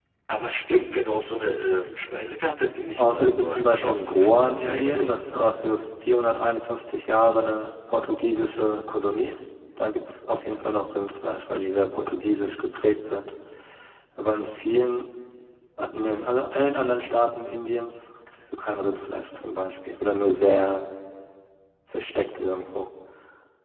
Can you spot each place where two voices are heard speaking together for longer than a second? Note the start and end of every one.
3.0-5.4

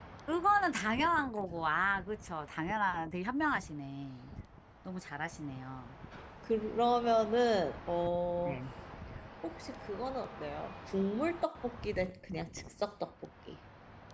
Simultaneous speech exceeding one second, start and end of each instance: none

